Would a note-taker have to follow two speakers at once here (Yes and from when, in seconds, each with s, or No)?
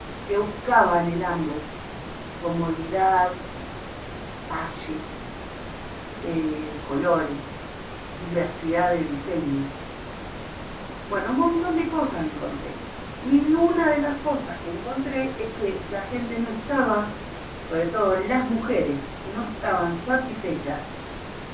No